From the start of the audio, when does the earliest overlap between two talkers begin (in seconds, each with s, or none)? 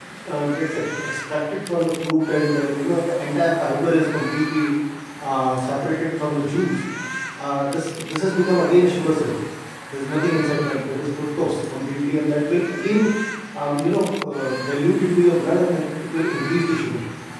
none